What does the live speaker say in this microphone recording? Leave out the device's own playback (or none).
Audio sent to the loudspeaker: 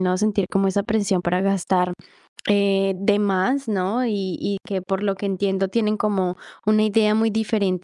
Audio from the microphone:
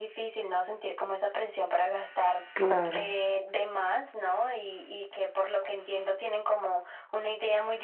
Claro,